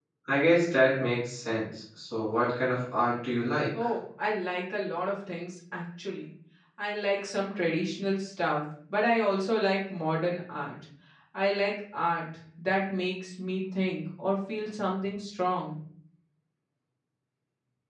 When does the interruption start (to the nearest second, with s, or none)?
none